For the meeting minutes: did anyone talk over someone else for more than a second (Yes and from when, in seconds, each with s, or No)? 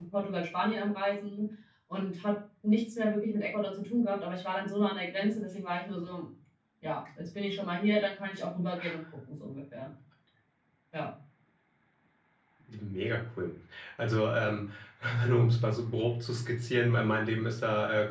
No